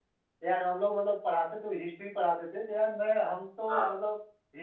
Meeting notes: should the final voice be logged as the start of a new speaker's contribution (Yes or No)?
No